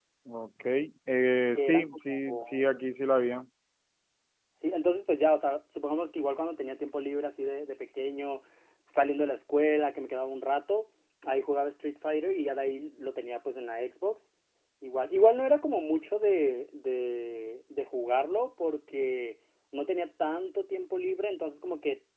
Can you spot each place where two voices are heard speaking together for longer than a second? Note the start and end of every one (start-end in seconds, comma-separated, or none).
1.6-2.8